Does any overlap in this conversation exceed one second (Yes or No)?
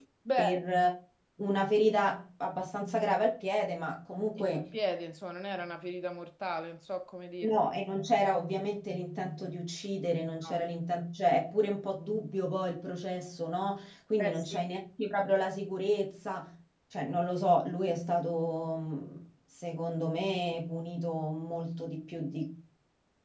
No